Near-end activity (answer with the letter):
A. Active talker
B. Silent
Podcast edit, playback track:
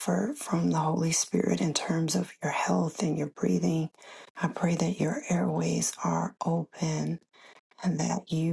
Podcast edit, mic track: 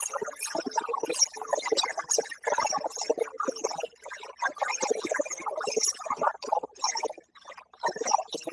B